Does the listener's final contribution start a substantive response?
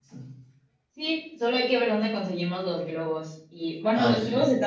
No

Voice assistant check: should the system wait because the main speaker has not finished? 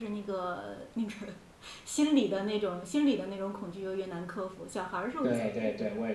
No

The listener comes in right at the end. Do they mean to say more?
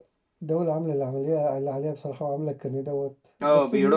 Yes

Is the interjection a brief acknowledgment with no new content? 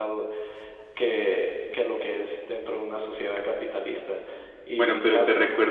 No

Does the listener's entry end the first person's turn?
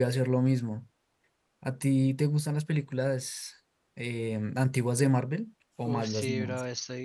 Yes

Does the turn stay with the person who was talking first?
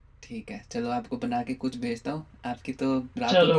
No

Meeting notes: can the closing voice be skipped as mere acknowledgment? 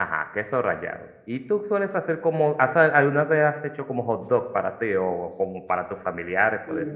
No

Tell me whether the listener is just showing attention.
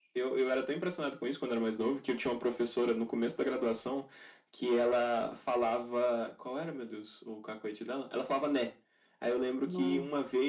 Yes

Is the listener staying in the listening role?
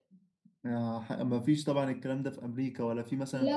No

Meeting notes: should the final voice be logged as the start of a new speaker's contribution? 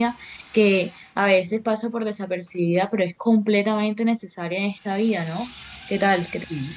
Yes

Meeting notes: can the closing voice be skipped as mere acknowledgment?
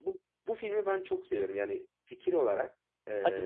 Yes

